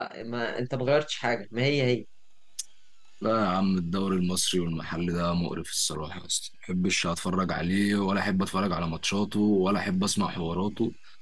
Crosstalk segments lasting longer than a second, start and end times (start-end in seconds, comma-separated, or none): none